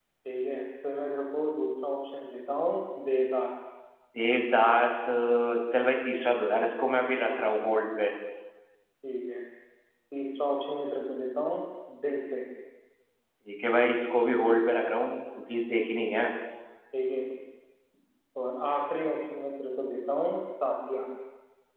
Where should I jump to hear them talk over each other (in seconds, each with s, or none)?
none